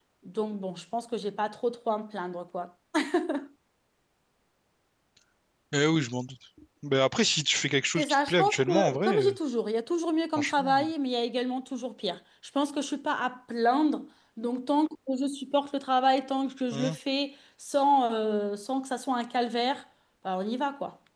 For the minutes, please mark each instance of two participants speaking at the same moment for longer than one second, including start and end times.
8.0-9.4

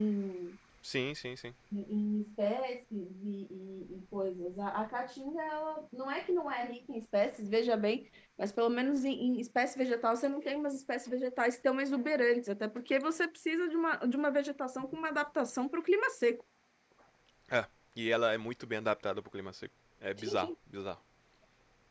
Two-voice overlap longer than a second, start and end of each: none

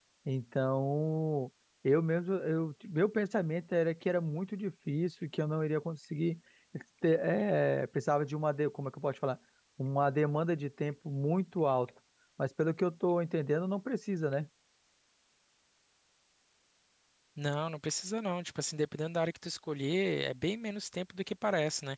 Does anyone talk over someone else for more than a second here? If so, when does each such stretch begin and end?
none

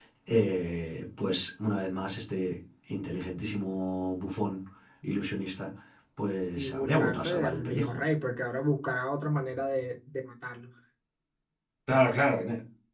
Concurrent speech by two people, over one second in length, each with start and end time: 6.6-8.0

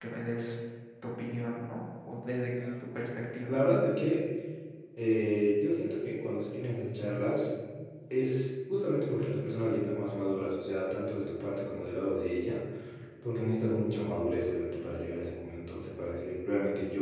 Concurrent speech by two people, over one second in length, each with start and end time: none

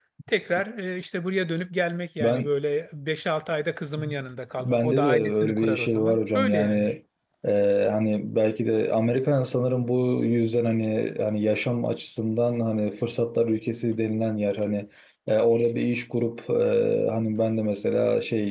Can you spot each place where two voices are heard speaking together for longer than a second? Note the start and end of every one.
4.6-6.9

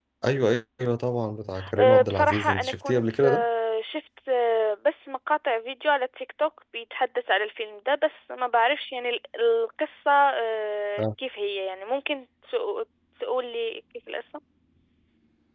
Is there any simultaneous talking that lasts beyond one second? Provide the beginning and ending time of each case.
1.8-3.4

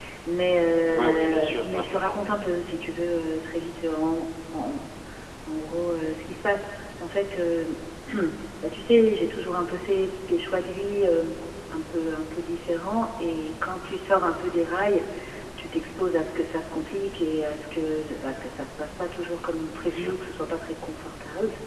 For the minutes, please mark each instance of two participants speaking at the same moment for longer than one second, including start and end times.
0.9-2.2

